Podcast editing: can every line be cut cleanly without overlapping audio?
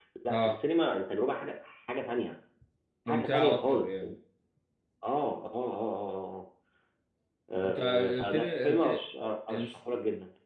No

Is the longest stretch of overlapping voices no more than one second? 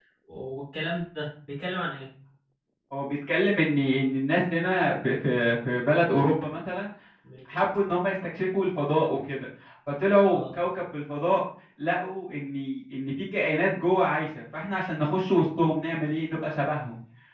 Yes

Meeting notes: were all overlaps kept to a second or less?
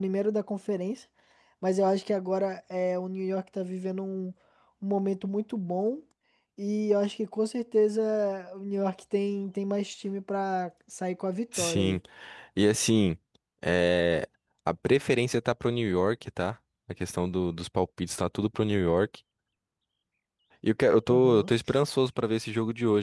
Yes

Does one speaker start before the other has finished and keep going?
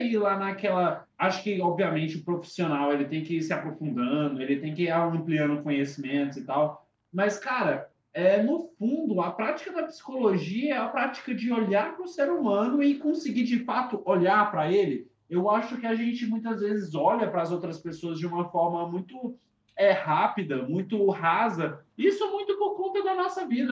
No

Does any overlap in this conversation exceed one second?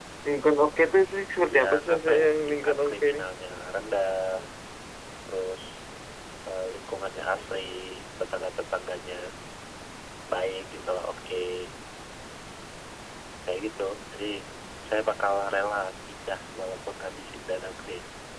Yes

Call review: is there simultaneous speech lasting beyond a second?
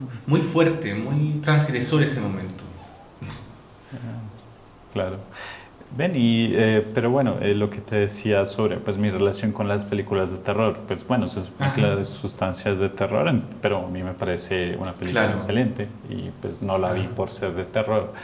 No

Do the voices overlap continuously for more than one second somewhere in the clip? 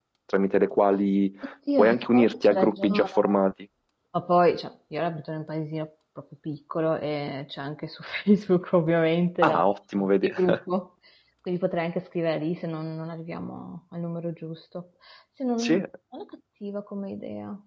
Yes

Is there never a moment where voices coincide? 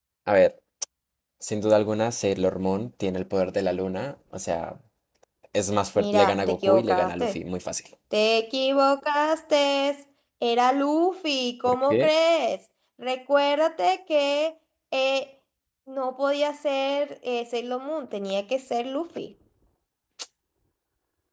No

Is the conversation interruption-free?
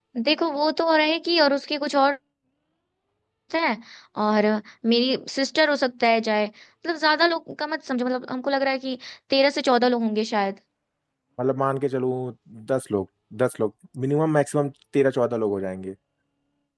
Yes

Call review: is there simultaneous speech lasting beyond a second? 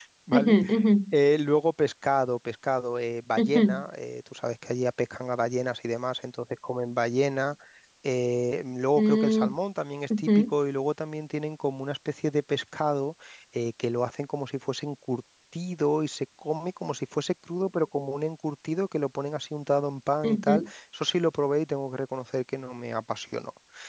No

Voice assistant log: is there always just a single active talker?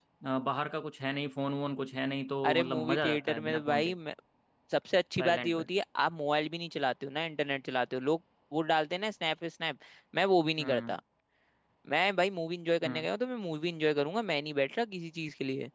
No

